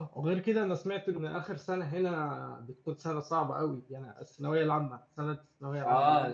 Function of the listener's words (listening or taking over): taking over